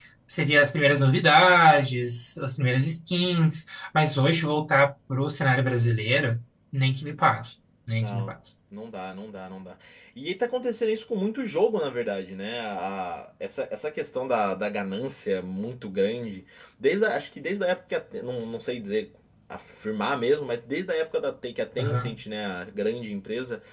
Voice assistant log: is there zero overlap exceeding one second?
Yes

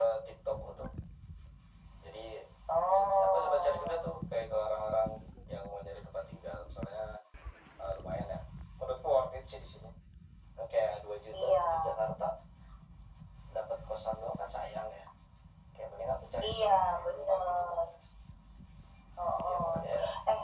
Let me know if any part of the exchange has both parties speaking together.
Yes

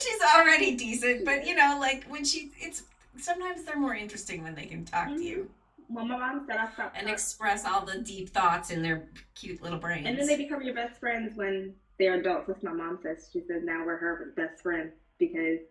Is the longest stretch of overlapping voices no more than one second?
Yes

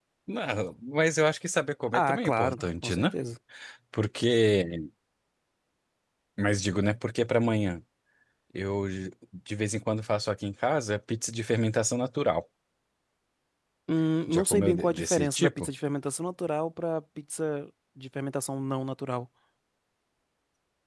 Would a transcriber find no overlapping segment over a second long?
No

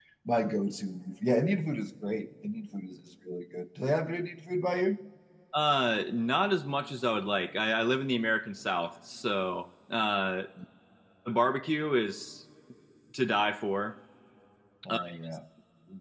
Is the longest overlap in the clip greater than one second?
No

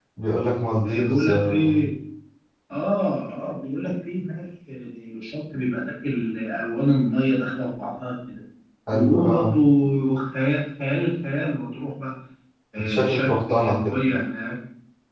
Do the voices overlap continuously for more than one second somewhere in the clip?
Yes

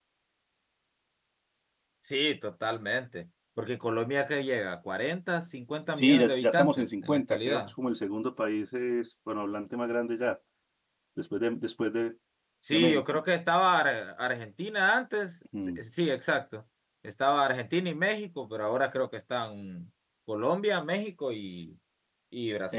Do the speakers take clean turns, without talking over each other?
No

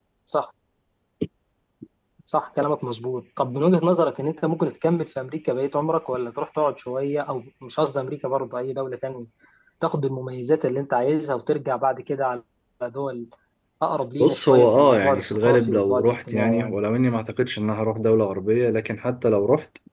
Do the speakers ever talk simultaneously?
Yes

